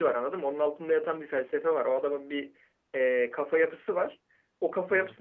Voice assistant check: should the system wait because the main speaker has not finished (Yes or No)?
Yes